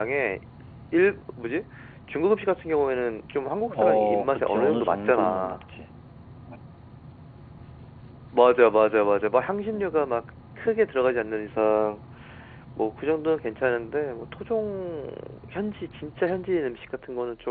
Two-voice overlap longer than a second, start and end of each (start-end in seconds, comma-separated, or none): 3.7-5.6